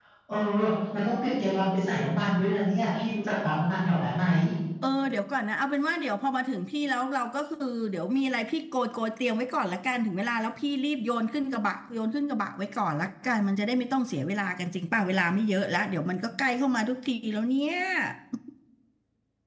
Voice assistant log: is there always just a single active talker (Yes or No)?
Yes